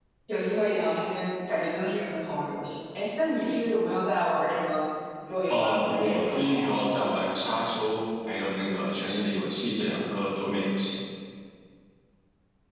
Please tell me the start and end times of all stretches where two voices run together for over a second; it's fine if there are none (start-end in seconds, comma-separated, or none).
5.5-6.7